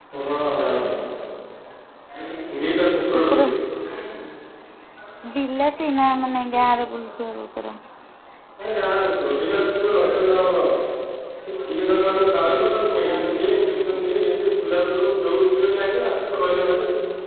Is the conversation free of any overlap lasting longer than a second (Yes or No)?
Yes